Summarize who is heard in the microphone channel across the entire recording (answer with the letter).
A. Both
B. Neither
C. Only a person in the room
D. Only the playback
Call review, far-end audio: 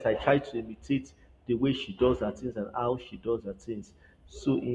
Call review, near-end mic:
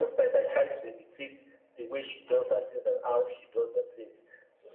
D